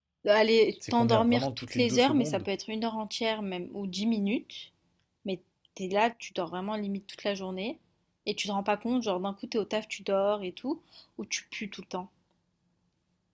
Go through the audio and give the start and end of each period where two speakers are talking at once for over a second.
0.9-2.5

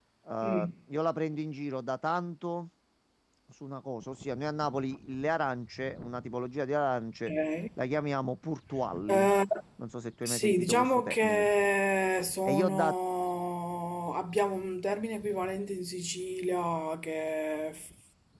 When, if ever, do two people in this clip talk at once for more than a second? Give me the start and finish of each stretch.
10.2-11.5

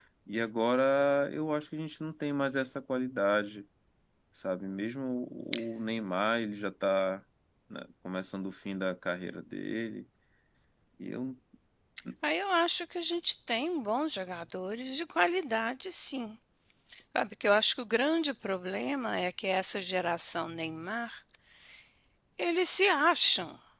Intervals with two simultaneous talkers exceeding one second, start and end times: none

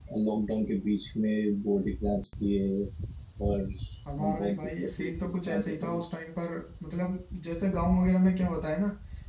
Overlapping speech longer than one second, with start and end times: 4.2-6.0

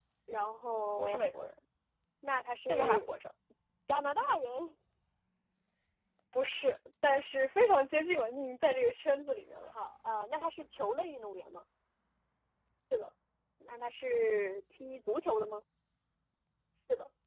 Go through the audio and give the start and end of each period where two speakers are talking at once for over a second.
none

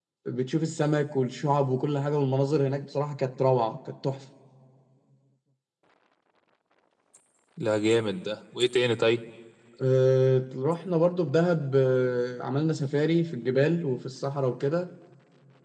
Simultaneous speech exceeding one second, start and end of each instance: none

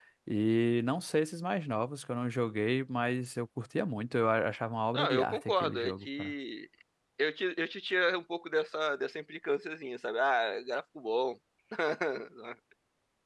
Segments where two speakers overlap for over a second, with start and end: 4.9-6.3

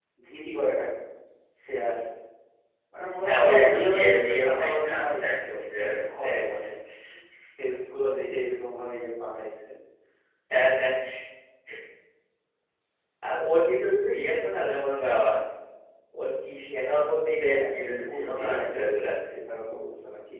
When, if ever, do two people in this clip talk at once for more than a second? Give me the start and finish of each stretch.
3.2-6.2, 17.5-18.9

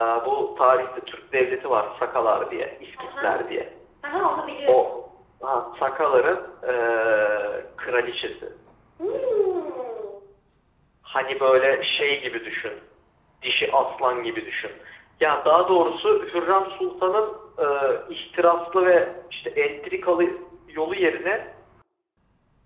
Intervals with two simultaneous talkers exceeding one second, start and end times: none

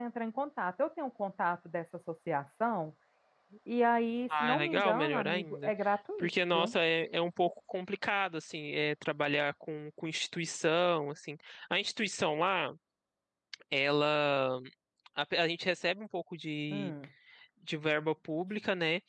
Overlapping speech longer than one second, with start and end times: 4.4-5.7

